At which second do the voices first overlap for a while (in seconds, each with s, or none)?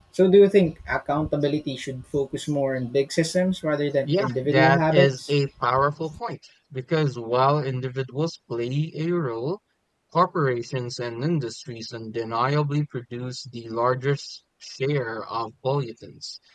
4.1 s